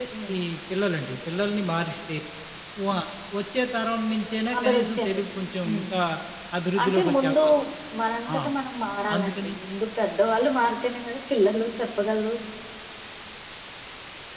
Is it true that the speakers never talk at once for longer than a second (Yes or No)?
No